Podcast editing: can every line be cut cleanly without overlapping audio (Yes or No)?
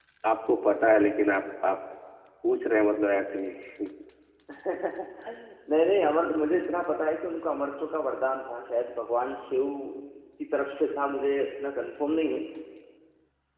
Yes